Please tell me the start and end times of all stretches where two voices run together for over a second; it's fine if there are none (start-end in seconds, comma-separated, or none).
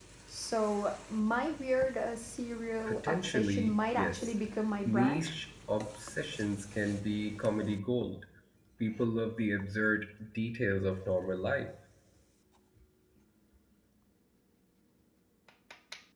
2.9-4.3